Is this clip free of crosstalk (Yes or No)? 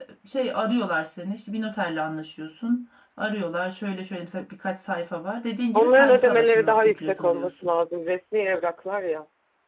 No